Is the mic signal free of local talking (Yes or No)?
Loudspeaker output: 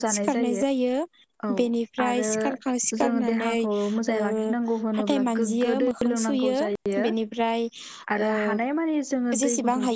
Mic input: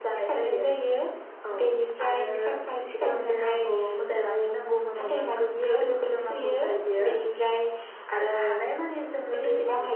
Yes